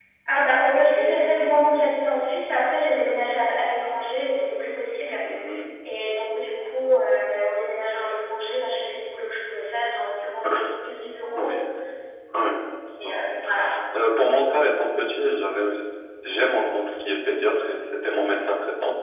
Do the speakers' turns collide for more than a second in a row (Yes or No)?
No